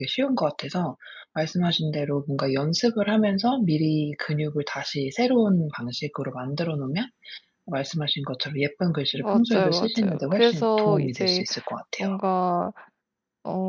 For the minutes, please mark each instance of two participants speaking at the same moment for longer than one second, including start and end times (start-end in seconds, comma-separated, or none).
9.1-11.4